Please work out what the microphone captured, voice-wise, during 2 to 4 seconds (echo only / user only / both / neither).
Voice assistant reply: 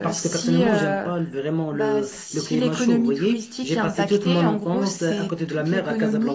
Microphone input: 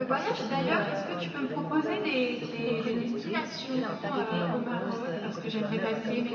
both